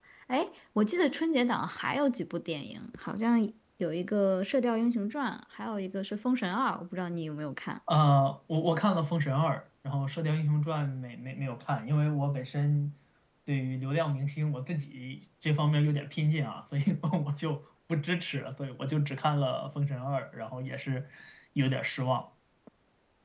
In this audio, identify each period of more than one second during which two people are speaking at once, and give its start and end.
none

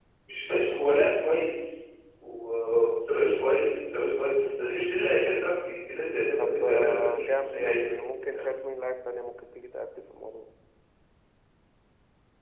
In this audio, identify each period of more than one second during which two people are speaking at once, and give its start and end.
6.4-7.9

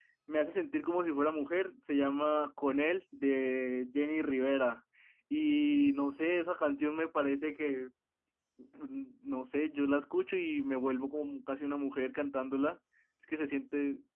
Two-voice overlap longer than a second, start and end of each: none

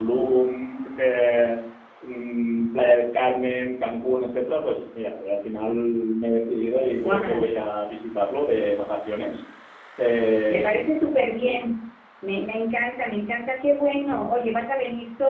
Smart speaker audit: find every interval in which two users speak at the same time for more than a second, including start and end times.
none

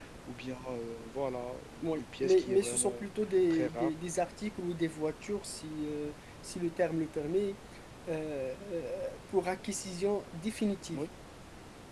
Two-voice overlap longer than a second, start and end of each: 1.8-3.0

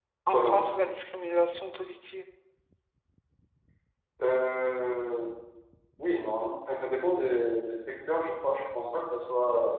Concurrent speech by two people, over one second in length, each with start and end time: none

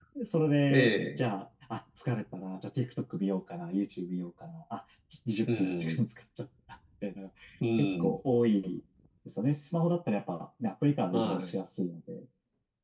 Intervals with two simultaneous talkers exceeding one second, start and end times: none

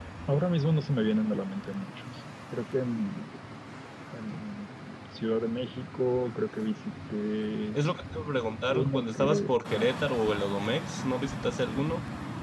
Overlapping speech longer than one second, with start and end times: 8.7-10.0

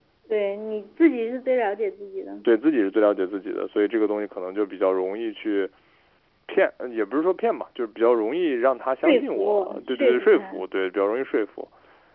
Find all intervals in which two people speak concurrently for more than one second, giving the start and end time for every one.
9.1-10.6

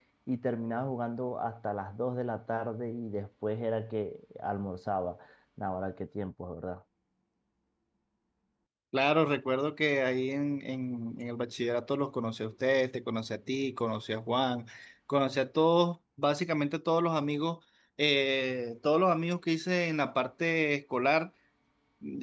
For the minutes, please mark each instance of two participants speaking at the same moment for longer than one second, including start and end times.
none

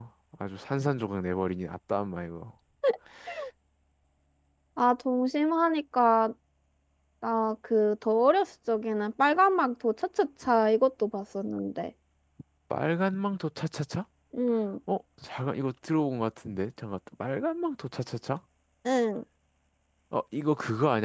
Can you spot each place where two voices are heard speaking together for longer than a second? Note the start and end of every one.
none

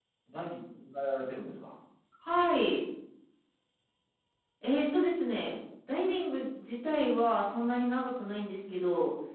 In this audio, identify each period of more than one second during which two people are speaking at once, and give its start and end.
none

